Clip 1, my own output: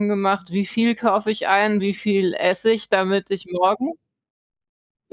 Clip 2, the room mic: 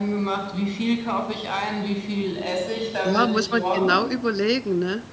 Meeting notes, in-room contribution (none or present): present